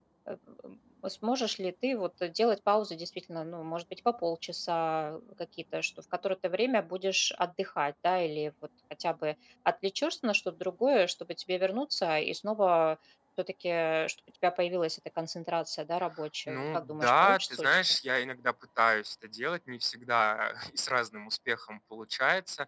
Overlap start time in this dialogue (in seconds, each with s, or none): 16.5 s